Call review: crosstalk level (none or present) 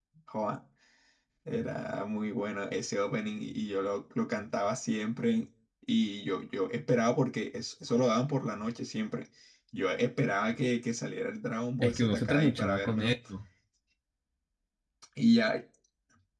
present